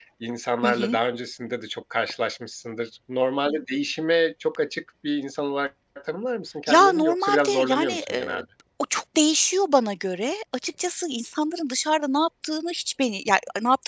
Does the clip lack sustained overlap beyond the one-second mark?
No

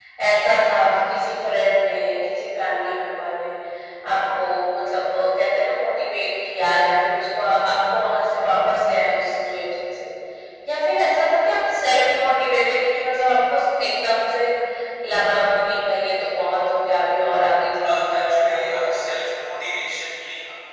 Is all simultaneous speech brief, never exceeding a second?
No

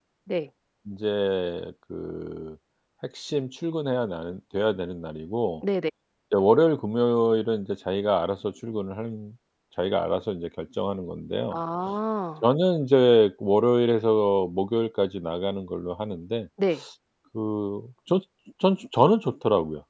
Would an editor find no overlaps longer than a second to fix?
Yes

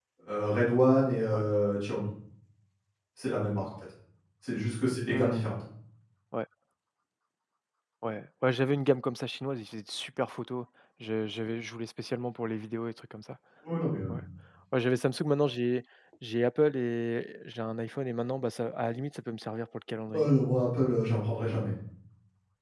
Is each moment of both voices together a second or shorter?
Yes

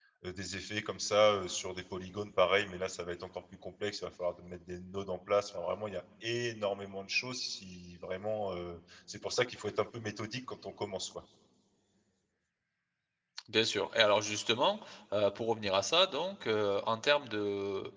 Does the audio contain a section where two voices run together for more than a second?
No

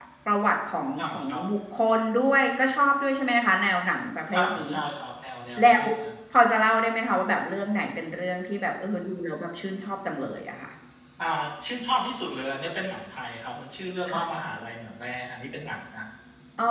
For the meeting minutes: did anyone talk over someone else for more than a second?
No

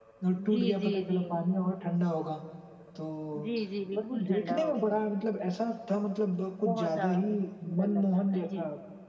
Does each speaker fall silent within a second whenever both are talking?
No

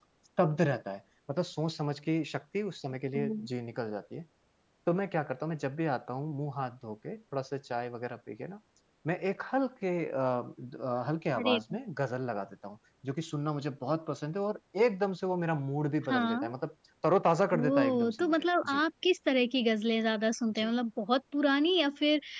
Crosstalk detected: Yes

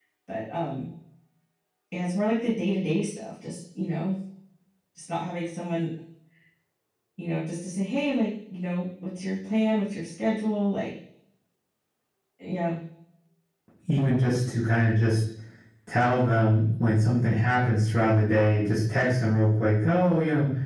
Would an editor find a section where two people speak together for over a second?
No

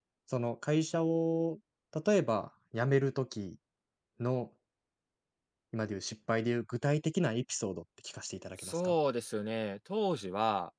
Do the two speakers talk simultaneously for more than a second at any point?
No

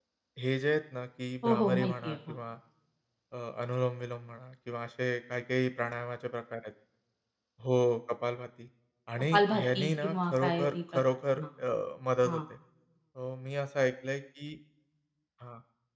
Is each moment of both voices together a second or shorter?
No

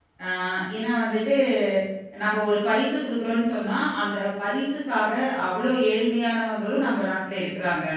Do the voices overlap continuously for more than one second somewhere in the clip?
No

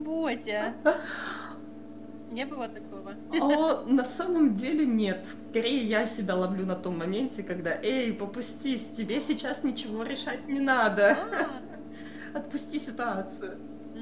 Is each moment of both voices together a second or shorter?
Yes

